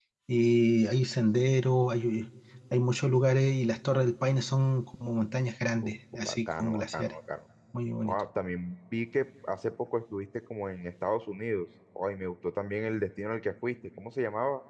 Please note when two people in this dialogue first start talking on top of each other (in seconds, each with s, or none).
5.8 s